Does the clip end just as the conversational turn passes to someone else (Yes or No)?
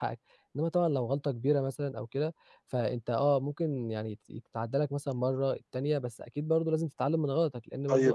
Yes